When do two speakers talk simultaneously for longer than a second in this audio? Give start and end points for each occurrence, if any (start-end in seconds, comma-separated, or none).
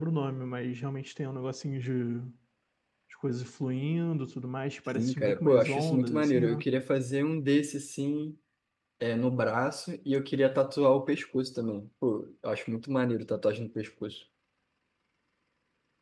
5.0-6.6